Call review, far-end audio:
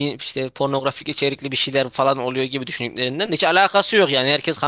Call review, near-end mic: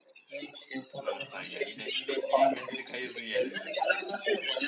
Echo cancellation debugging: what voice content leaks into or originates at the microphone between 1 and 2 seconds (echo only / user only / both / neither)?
both